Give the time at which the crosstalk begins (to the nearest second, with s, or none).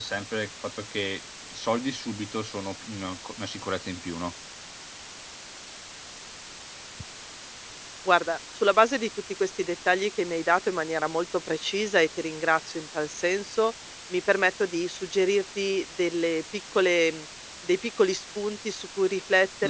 none